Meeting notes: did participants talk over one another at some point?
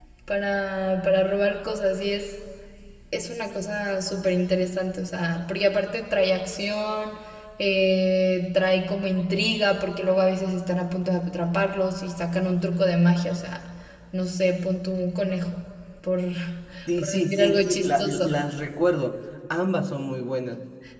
Yes, from 17.0 s

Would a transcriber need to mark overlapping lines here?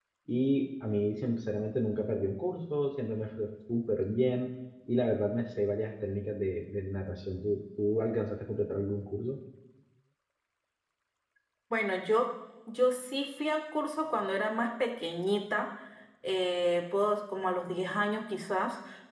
No

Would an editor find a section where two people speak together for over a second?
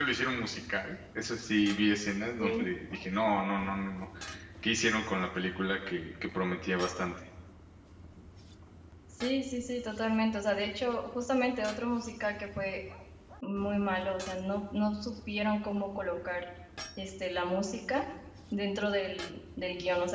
No

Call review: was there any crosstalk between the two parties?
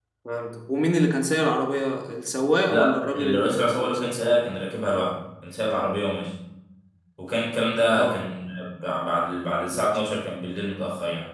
Yes, from 2.7 s

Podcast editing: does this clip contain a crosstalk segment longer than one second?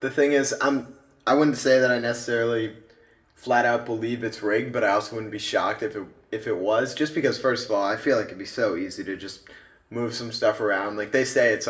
No

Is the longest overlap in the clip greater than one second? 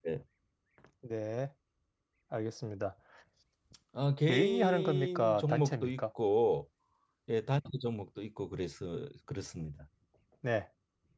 Yes, from 4.3 s

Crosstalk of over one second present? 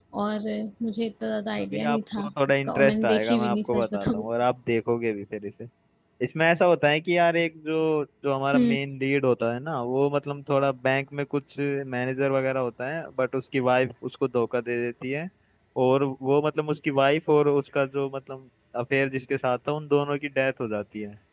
Yes, from 1.7 s

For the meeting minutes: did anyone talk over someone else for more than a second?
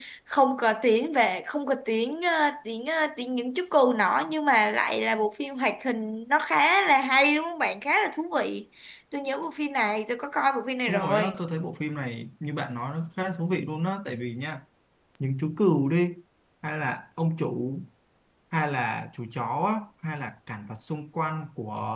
No

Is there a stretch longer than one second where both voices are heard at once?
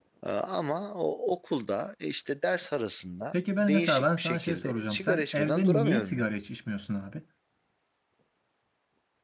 Yes, from 3.3 s

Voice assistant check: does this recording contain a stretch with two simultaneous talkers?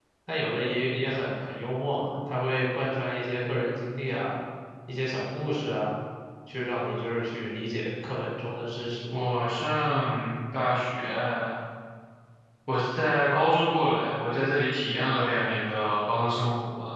No

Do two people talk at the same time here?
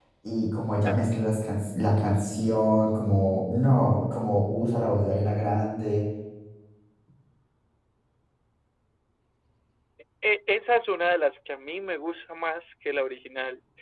No

